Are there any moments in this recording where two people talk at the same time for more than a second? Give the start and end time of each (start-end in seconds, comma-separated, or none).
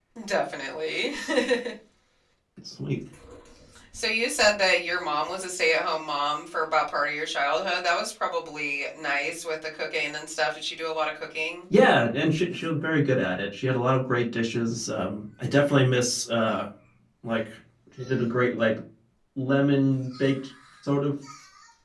none